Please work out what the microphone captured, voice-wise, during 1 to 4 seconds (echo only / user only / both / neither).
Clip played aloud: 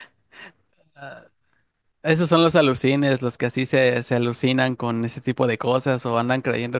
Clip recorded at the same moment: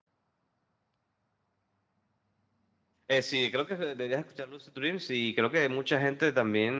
user only